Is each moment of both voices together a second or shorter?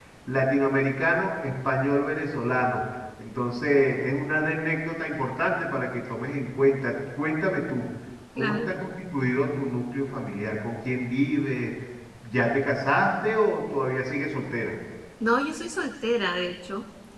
Yes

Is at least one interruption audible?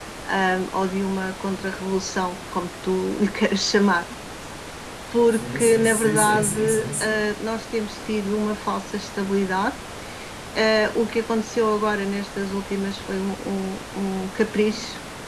Yes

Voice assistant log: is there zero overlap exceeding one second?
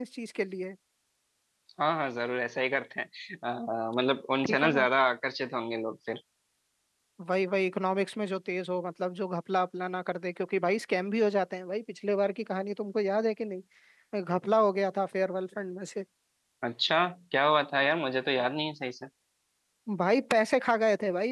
Yes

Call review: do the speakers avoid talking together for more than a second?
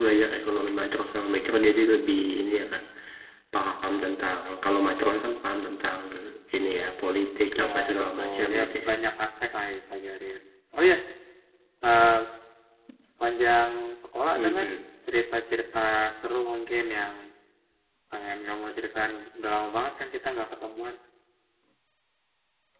No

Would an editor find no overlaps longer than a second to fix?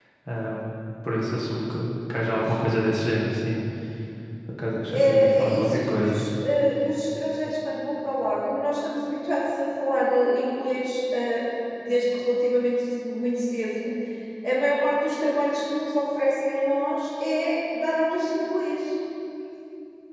No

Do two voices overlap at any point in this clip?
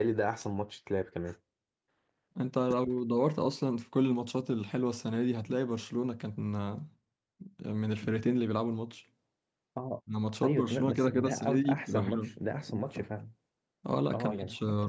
Yes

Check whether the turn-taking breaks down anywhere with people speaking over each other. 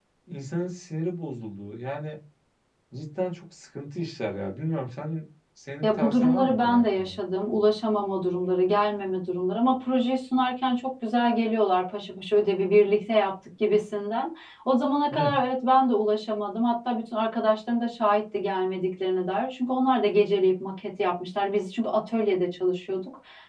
Yes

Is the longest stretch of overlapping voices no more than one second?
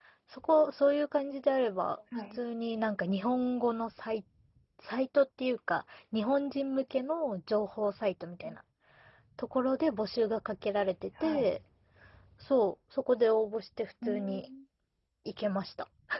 Yes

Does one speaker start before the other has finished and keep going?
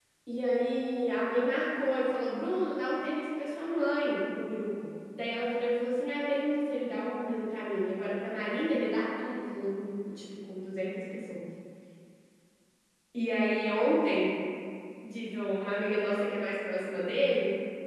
No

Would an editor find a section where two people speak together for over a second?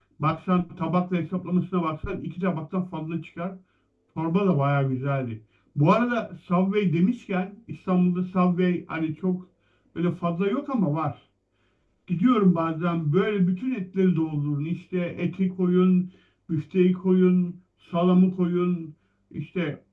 No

